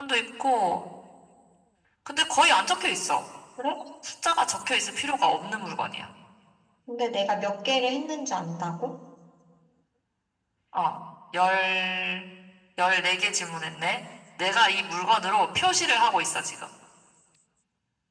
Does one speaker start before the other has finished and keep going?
No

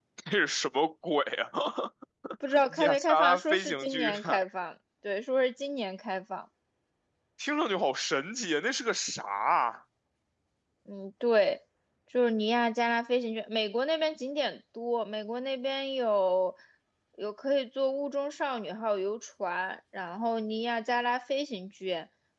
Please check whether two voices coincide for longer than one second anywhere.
Yes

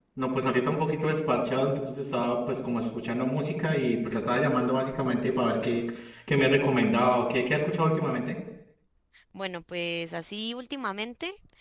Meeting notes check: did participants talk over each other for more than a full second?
No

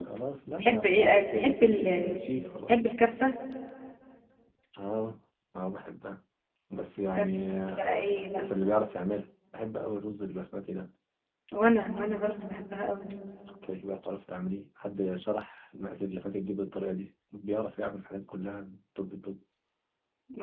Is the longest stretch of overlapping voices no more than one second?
No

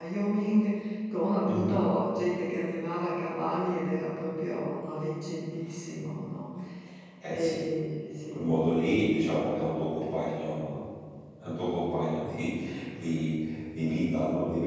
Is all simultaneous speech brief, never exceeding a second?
Yes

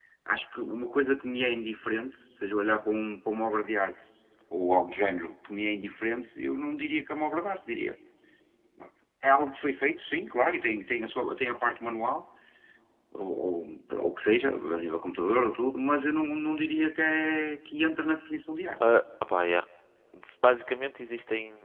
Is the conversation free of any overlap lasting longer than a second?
Yes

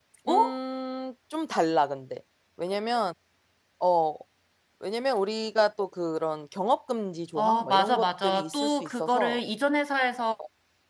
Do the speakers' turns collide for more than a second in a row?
Yes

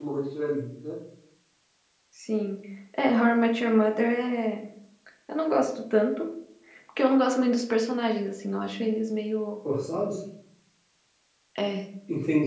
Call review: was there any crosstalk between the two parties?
No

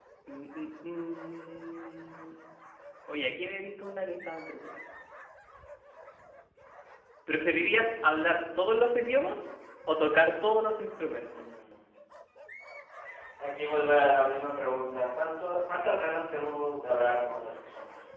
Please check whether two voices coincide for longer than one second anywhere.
No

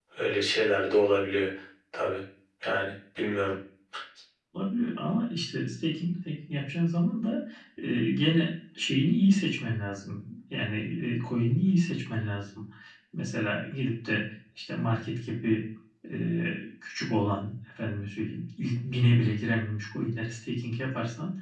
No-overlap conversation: Yes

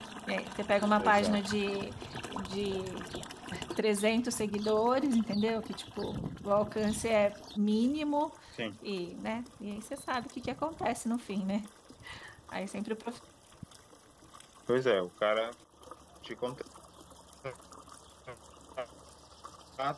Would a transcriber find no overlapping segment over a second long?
Yes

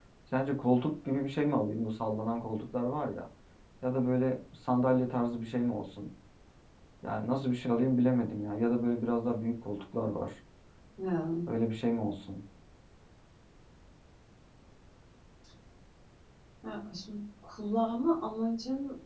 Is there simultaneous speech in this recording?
No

